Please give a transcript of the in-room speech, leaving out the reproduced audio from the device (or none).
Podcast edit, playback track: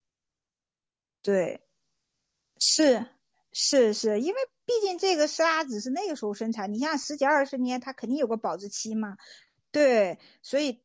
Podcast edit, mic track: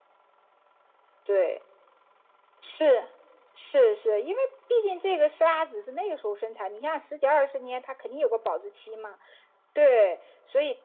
none